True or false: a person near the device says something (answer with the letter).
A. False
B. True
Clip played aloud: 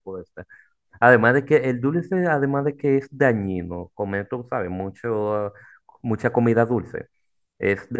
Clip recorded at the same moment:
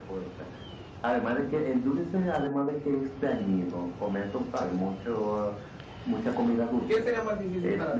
B